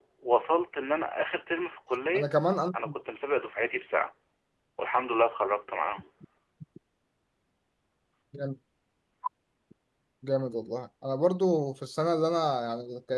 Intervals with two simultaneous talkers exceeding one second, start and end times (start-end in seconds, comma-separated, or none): none